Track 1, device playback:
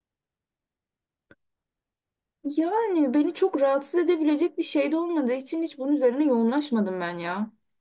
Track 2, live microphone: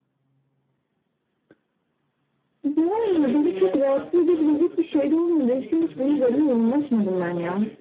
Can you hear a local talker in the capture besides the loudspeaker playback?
Yes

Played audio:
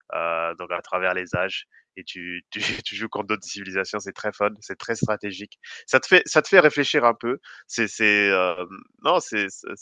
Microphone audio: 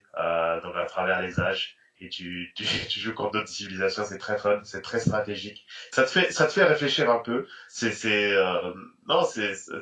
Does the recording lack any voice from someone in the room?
Yes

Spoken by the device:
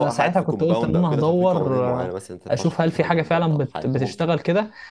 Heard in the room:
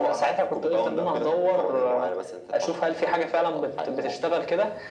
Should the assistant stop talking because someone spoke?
No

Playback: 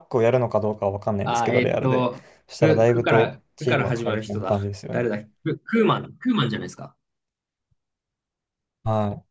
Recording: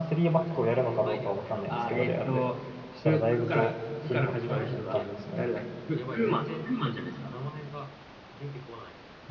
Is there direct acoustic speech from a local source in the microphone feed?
Yes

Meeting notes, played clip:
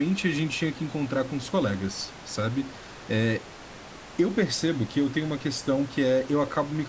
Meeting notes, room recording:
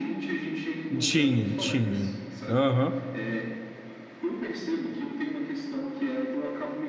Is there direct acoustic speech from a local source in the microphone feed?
Yes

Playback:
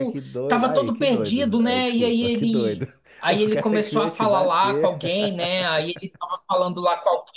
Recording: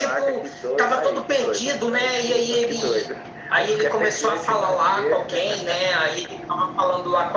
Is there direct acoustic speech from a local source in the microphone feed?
No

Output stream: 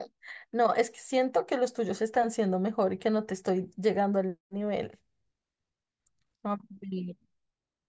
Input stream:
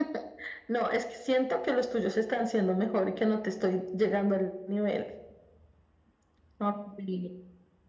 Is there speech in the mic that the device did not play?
No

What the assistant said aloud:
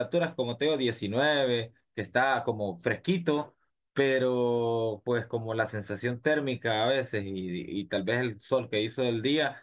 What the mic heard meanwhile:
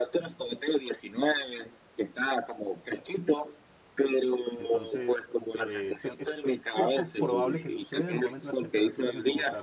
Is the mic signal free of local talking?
No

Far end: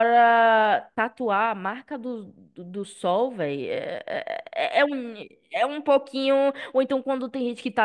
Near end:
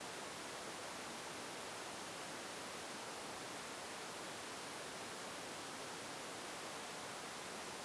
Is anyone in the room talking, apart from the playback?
No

